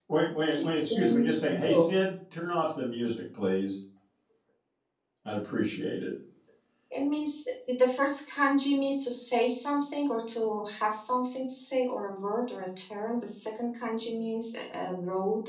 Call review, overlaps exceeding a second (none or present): present